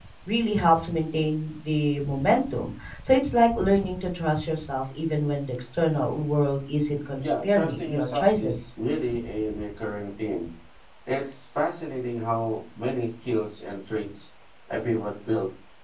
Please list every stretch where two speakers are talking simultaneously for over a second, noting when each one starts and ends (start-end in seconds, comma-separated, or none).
7.2-8.7